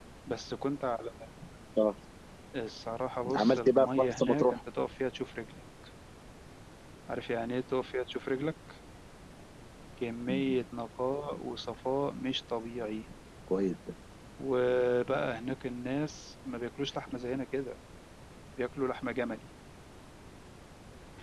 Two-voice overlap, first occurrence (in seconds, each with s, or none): 3.3 s